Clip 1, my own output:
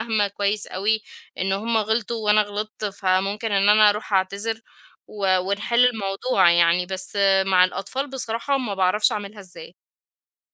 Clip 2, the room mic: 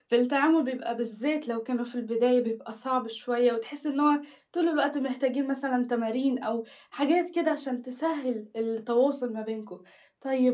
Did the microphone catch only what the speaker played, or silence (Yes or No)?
No